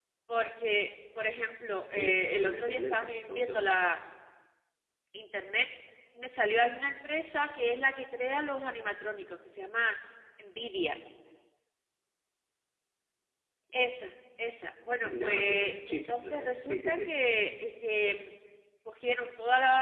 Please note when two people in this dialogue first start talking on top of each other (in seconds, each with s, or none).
1.9 s